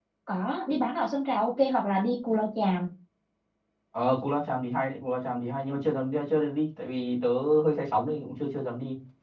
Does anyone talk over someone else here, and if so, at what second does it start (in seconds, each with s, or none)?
none